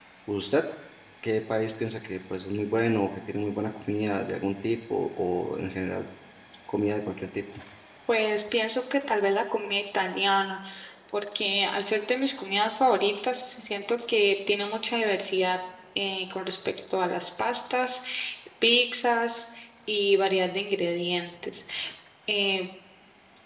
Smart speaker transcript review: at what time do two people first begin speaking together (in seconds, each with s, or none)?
none